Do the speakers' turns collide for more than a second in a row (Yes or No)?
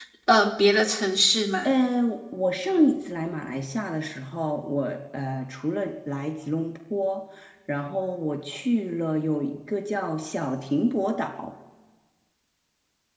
No